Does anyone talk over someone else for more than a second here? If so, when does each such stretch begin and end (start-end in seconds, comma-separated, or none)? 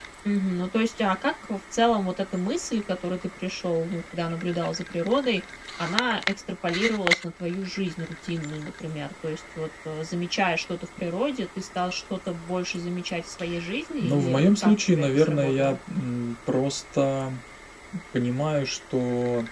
14.0-15.8